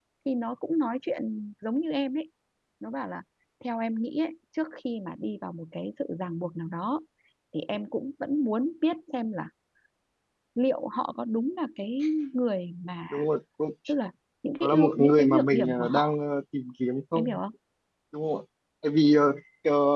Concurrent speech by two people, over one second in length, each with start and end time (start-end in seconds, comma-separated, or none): 14.6-16.1